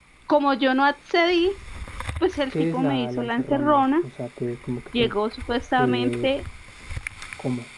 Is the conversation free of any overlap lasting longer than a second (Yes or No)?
No